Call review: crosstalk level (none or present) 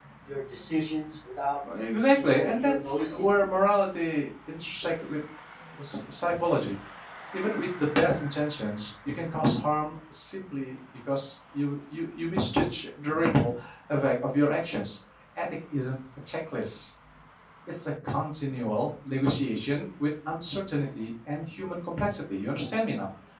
present